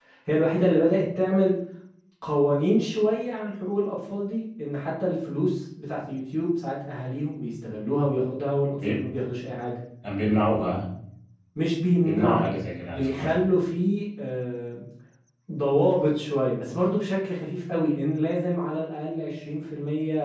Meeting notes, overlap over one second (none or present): none